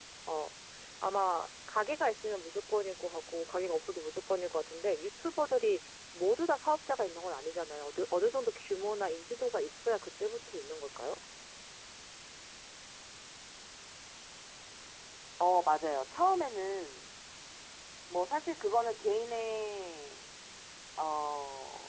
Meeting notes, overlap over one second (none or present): none